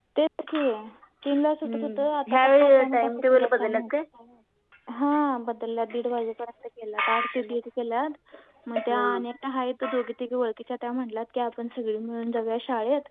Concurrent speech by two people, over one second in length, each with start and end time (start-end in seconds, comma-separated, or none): 1.6-3.8